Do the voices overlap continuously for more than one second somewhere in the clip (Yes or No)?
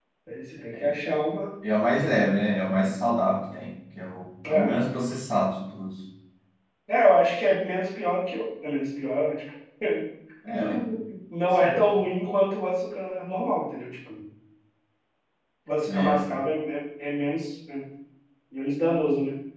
No